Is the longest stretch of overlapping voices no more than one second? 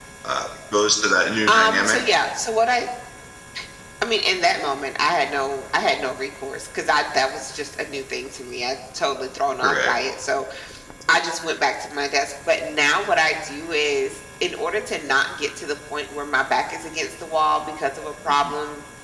Yes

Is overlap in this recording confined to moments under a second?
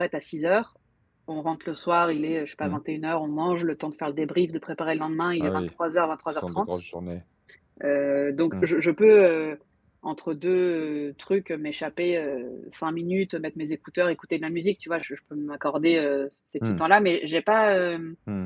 Yes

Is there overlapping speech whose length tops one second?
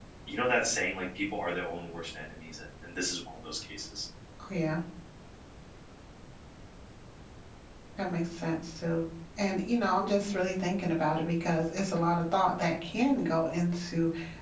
No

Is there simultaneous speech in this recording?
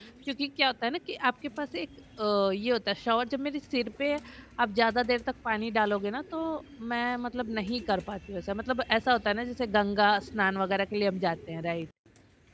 No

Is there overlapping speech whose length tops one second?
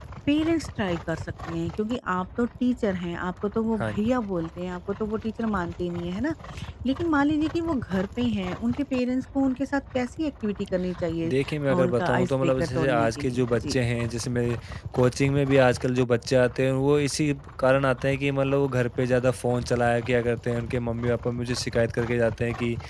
Yes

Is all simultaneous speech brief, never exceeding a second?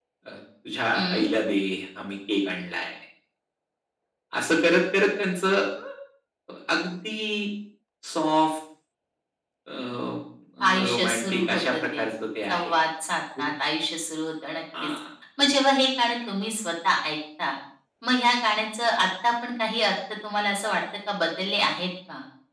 No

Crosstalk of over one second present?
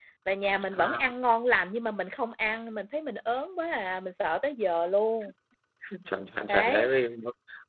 No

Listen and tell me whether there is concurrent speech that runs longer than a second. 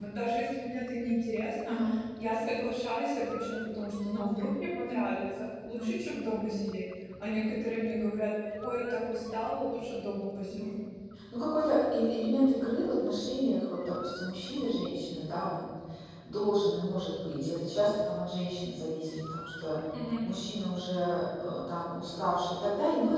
No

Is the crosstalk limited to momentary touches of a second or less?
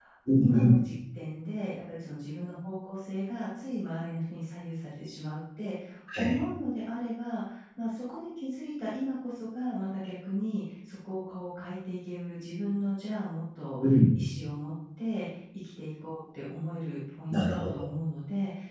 Yes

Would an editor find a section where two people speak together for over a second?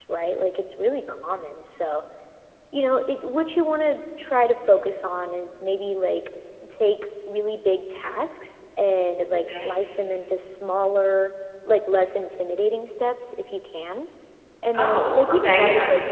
Yes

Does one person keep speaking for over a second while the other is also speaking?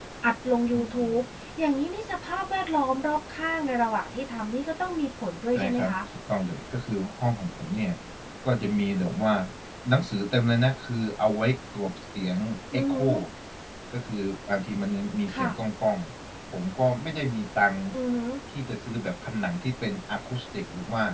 No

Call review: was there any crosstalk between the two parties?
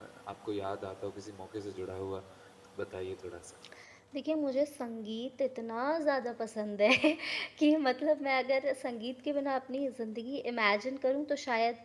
No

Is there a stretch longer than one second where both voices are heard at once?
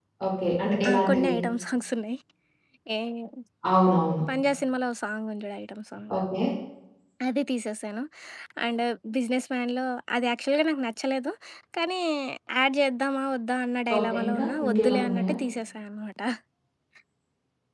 Yes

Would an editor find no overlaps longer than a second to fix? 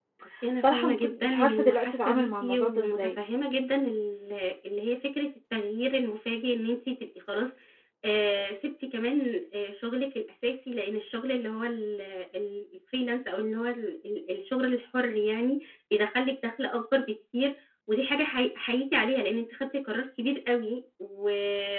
No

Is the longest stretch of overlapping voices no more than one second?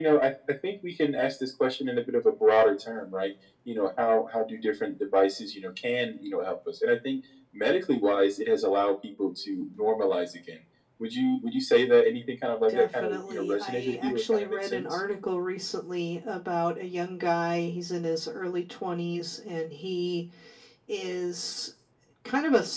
No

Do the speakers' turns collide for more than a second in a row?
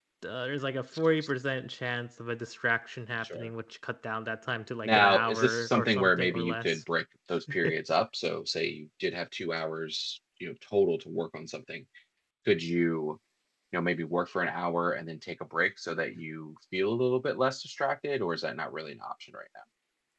Yes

